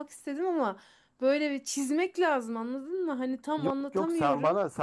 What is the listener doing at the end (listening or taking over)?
taking over